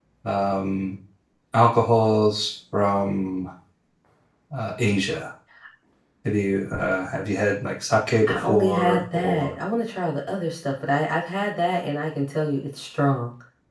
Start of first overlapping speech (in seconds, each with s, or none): 8.3 s